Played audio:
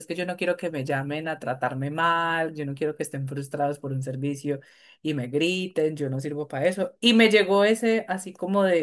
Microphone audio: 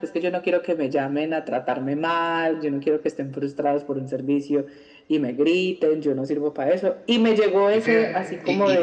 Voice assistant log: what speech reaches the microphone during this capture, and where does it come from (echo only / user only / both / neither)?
both